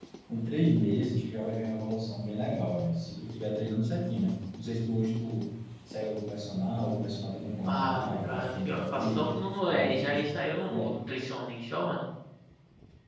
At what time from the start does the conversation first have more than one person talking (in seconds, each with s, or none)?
7.7 s